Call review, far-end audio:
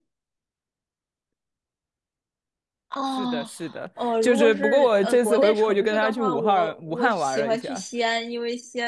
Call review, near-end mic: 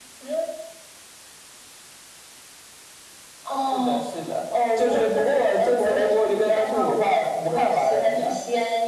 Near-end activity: none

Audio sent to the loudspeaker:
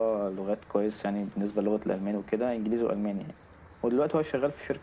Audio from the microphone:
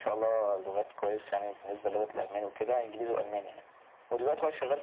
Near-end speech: none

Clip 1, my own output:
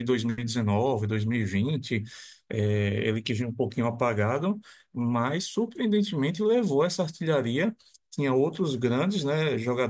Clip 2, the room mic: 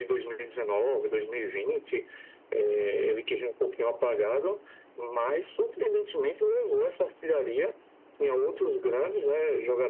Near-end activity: none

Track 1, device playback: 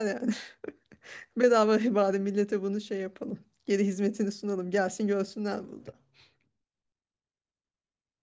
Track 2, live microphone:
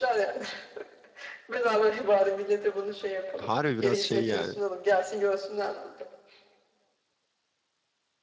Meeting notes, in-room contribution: present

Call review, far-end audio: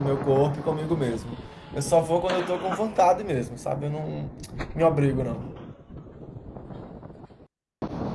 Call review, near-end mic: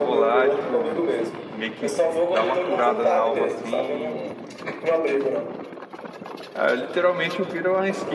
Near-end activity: present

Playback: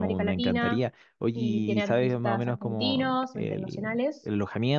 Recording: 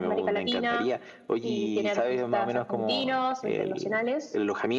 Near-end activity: none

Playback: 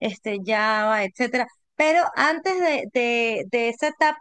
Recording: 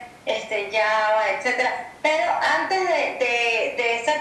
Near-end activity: none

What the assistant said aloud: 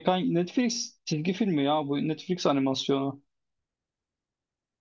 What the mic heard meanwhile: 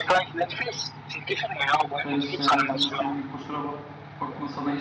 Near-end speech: present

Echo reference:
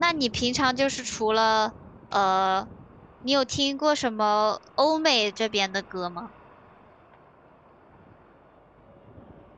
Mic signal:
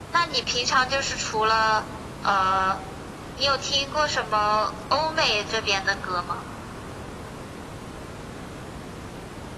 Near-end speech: none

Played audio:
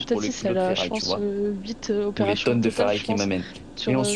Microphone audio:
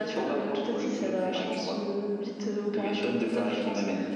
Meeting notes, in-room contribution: none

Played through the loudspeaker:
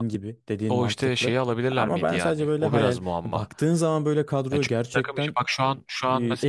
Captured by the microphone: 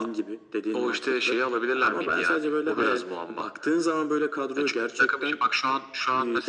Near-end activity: none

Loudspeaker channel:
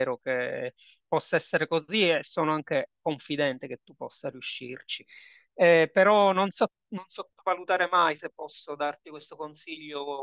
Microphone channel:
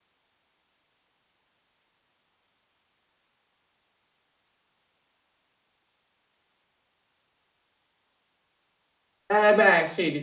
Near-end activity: present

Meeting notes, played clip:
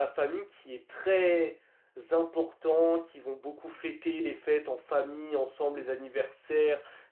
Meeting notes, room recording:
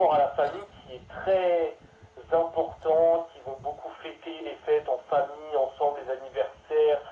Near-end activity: none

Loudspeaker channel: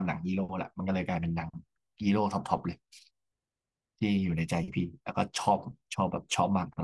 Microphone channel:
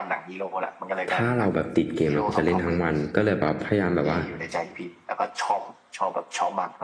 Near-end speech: present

